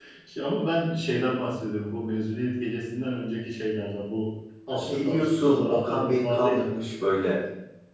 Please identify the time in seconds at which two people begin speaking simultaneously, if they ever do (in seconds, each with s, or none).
4.7 s